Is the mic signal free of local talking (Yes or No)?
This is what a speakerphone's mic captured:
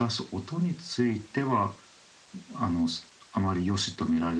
Yes